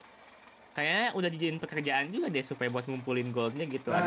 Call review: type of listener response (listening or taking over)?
taking over